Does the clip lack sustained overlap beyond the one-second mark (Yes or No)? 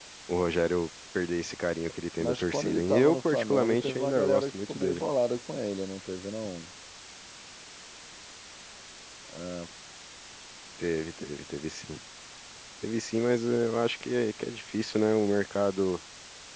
No